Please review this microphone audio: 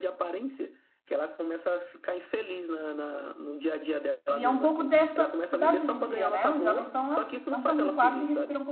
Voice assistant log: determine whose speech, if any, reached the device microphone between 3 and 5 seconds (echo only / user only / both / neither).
both